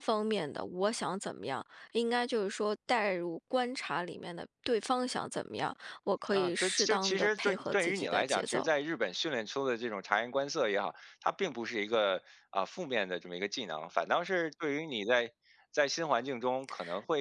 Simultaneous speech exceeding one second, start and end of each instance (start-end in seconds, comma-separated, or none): 6.3-8.7